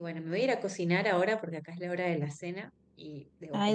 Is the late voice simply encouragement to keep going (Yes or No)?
No